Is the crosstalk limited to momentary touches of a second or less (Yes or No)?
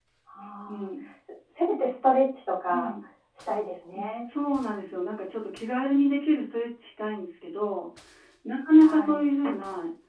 Yes